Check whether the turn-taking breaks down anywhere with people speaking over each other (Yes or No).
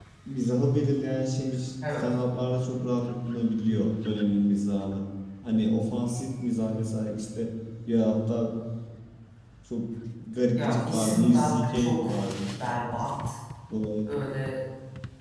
Yes